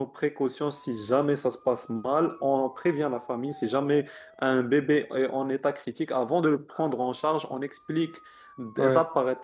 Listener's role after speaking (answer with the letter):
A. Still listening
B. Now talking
A